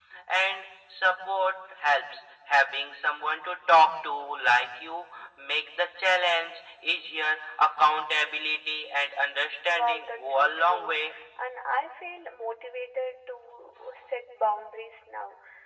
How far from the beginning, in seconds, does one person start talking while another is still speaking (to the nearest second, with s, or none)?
10 s